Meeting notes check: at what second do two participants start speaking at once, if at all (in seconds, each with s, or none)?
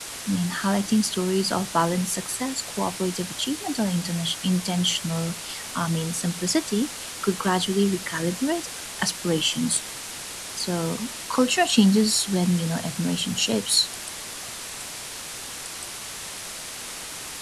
none